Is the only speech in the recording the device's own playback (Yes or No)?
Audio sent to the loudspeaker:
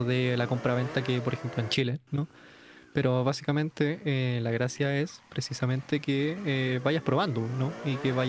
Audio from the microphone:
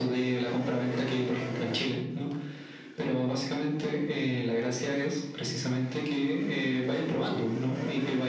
Yes